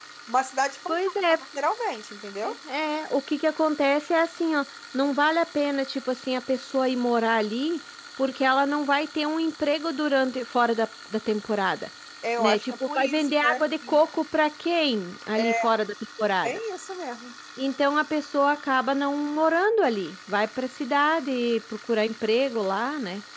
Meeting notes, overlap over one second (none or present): present